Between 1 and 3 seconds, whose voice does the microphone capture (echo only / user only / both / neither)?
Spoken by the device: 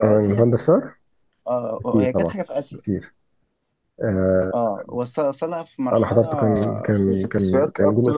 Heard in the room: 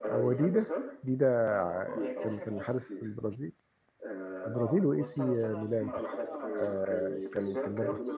both